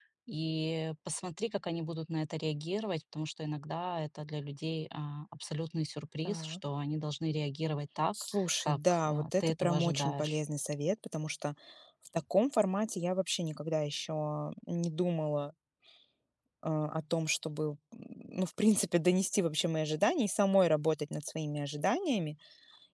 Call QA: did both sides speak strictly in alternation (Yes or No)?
No